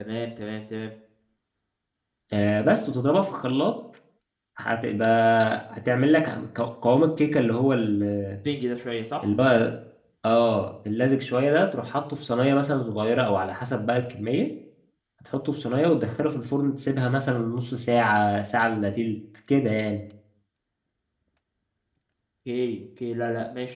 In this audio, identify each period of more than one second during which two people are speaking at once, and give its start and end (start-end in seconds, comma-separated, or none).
none